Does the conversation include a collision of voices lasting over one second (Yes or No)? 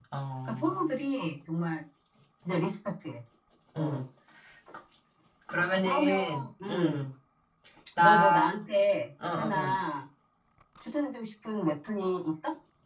Yes